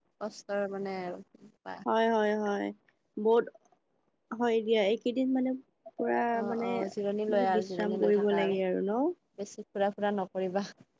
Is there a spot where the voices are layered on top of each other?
Yes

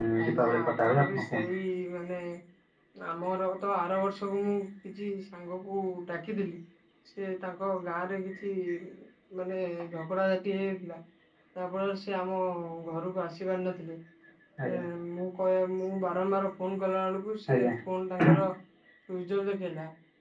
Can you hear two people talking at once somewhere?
Yes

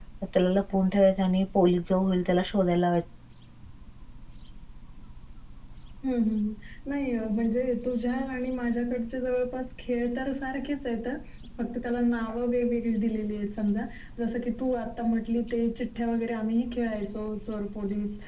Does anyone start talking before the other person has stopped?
No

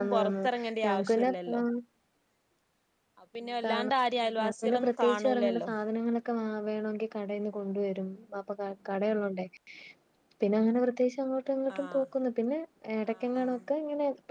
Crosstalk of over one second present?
Yes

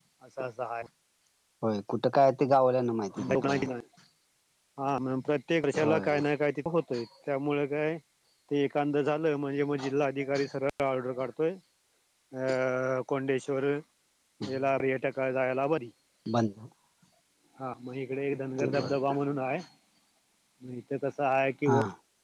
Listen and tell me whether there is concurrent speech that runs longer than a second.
No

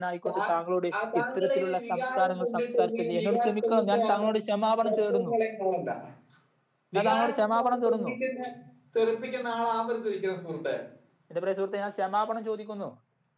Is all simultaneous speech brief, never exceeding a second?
No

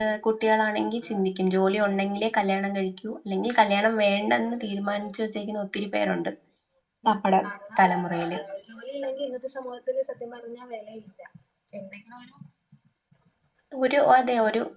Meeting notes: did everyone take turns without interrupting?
Yes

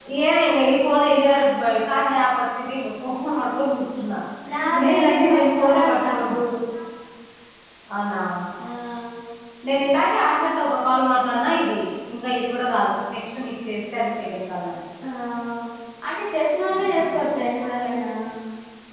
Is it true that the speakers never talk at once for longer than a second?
No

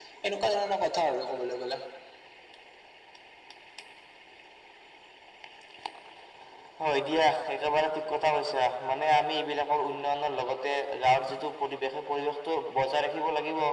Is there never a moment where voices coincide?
Yes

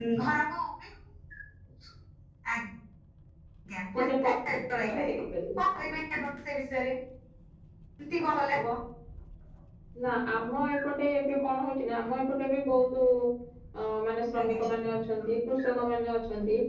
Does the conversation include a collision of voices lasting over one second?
No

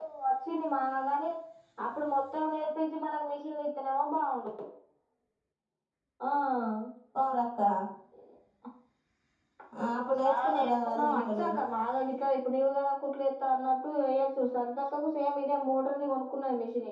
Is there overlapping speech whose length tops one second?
Yes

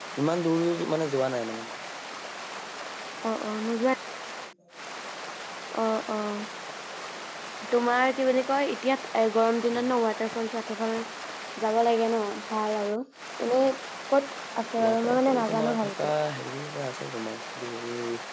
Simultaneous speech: Yes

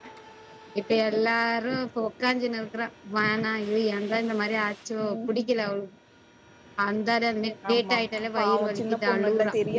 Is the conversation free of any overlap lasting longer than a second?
No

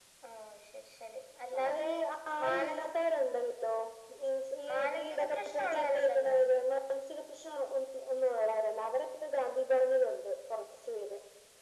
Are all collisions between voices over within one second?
No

